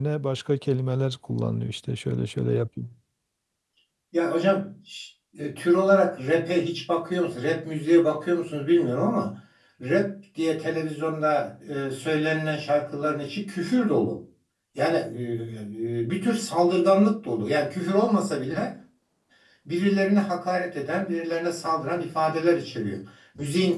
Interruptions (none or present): none